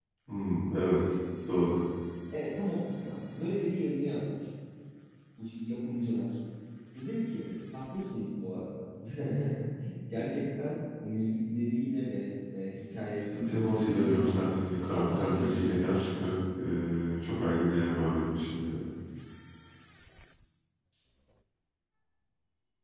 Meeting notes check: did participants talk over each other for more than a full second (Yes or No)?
Yes